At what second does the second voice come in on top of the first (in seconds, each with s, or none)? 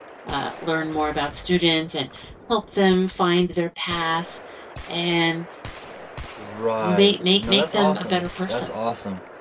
6.8 s